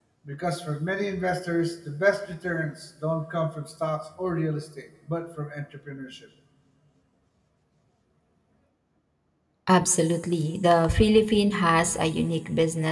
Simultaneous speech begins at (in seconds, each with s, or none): none